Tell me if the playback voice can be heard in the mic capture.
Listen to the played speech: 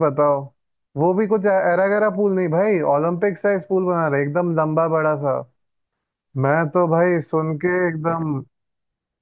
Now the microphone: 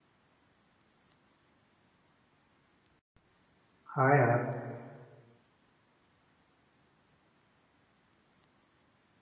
No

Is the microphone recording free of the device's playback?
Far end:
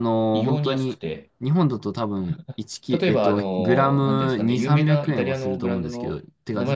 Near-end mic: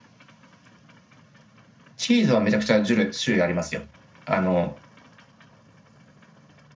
Yes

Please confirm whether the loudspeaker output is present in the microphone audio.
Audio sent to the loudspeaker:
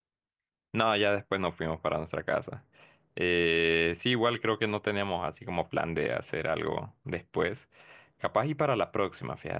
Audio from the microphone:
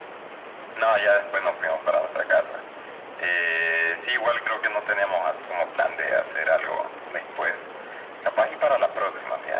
Yes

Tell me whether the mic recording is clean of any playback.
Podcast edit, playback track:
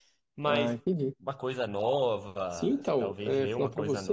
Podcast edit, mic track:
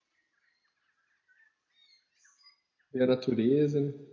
Yes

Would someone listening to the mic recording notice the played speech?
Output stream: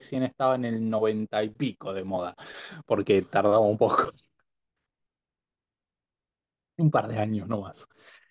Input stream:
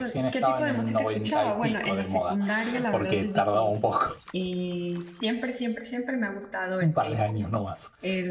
Yes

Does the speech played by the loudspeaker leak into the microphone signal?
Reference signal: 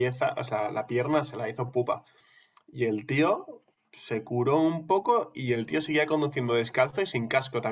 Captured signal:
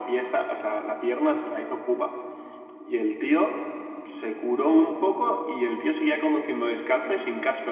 Yes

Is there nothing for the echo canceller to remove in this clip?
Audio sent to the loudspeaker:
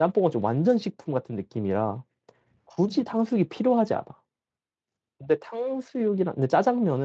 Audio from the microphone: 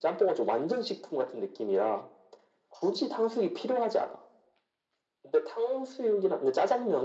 No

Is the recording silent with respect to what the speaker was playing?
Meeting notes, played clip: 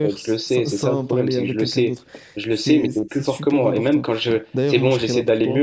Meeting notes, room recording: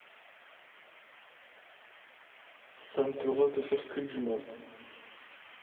Yes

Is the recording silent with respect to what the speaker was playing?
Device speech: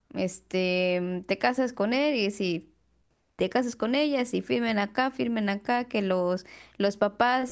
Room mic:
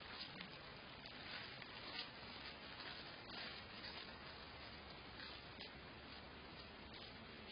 Yes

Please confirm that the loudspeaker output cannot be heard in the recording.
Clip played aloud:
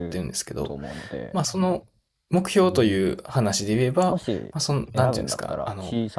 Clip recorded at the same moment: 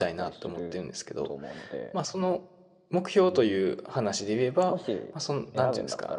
No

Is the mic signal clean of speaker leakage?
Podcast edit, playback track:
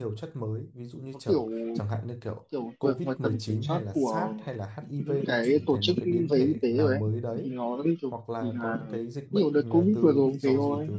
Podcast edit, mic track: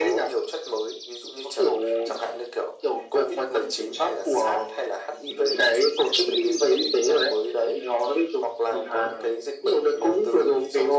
No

